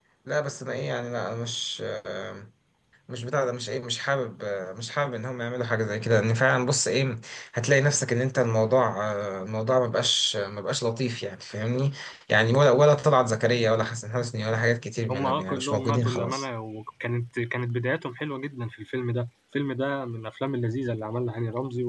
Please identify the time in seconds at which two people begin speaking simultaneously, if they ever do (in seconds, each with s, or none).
15.1 s